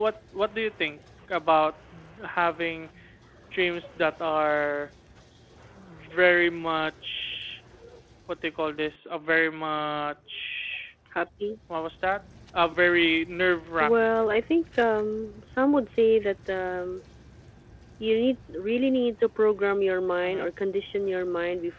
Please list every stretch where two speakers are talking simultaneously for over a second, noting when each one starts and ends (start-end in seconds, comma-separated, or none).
none